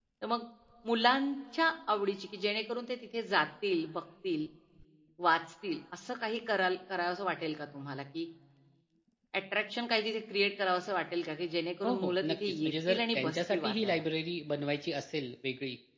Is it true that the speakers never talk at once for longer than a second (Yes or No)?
No